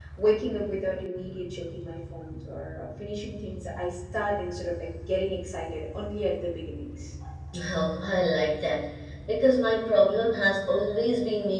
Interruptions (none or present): none